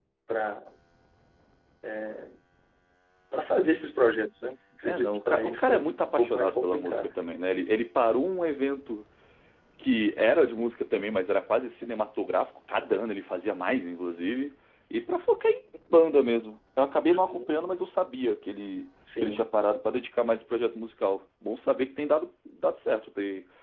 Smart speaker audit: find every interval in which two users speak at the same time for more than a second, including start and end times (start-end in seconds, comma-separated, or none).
4.8-7.1